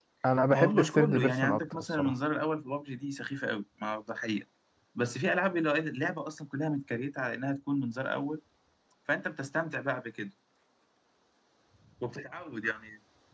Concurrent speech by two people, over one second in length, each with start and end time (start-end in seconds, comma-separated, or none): 0.5-2.1